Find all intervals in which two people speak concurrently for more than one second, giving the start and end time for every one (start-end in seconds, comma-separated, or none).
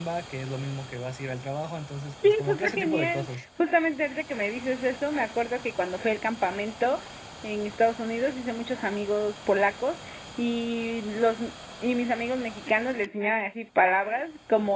2.2-3.4